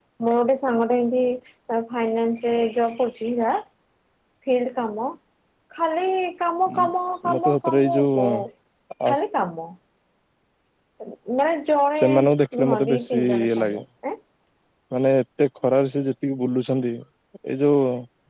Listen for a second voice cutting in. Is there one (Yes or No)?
Yes